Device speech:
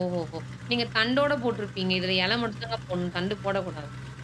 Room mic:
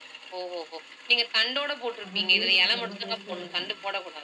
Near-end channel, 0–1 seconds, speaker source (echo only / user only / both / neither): echo only